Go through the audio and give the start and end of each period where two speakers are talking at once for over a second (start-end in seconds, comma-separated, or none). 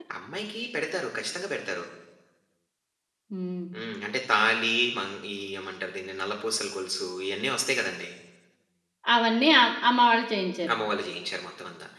none